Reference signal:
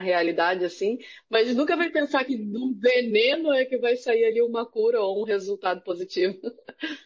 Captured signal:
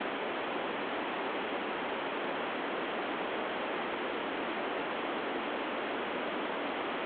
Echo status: none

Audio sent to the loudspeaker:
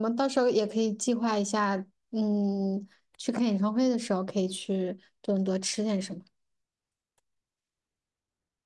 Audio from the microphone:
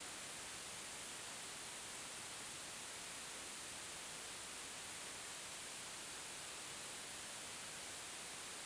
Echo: none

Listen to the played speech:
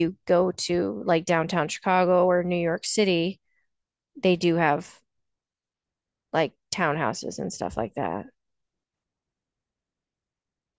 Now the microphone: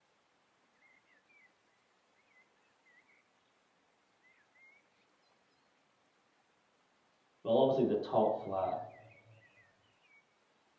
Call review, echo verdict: none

